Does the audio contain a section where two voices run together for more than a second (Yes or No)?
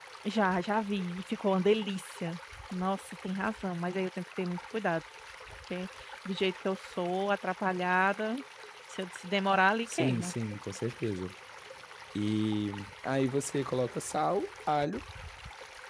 No